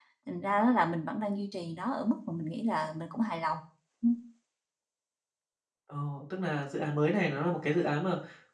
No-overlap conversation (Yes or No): Yes